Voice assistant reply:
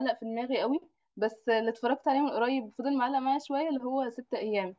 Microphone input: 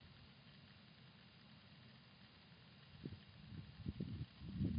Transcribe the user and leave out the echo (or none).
none